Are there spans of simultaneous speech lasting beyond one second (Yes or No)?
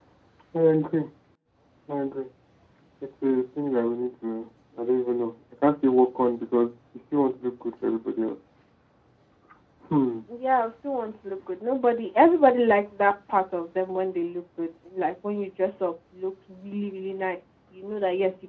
No